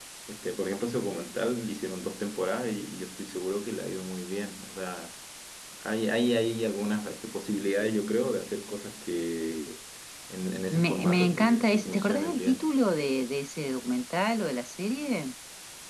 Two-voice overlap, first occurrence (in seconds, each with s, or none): 10.7 s